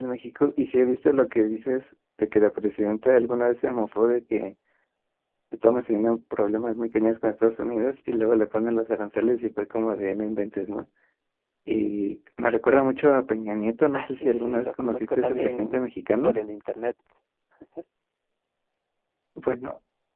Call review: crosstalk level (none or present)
present